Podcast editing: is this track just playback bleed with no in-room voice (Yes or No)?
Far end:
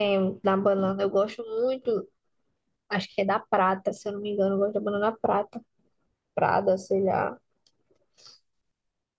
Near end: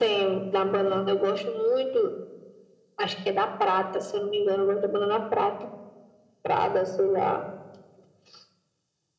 Yes